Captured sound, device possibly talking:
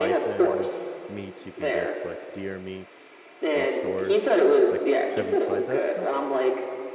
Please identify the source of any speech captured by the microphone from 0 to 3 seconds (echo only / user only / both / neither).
both